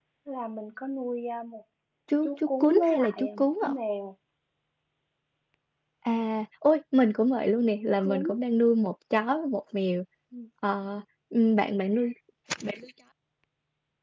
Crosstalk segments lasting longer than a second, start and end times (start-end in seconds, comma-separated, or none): 2.2-3.7